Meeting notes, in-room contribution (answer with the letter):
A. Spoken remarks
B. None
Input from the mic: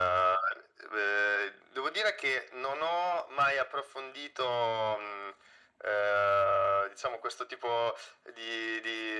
B